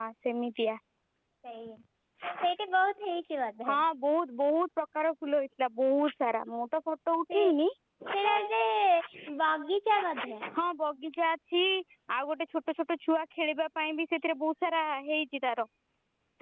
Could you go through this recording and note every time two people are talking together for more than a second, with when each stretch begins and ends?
none

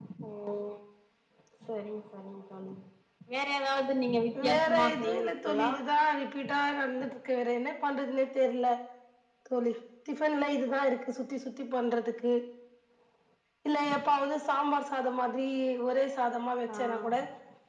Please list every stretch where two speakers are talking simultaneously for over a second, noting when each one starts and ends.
4.4-5.7

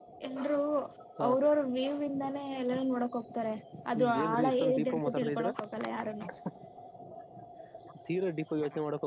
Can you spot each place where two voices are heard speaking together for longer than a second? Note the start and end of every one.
4.0-5.5

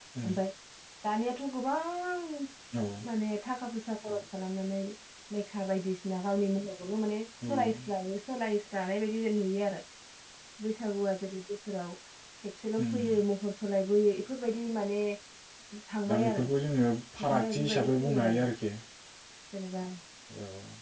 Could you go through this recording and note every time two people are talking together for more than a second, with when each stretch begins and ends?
17.2-18.4

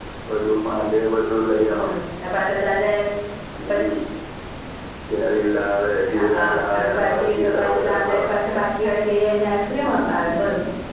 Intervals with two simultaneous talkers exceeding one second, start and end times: 6.2-8.3

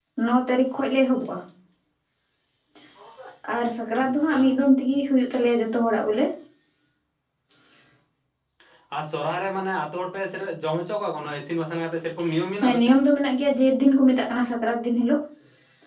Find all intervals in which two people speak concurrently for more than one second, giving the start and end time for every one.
none

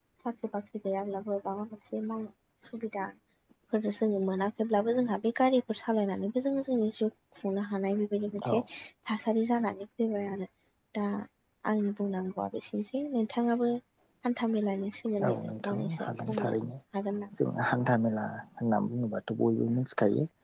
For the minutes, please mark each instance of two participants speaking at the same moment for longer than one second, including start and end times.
15.3-16.5

